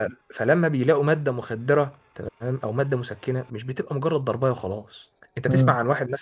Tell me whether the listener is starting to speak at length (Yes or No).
No